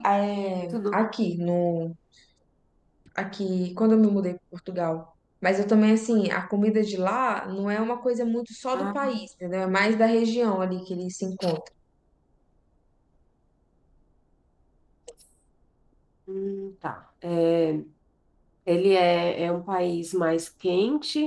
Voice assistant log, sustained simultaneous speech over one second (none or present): none